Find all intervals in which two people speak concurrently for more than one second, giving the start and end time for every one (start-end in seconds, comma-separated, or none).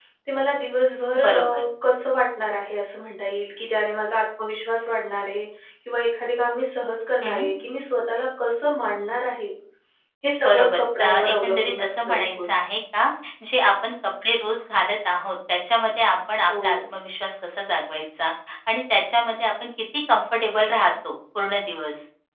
10.4-12.5